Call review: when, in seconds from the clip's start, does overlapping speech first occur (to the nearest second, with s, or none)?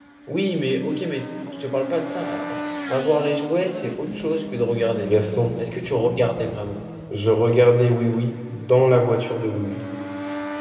none